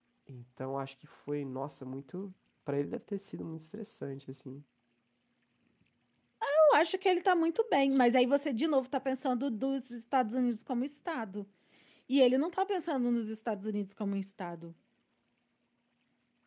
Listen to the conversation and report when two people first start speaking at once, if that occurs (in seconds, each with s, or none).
none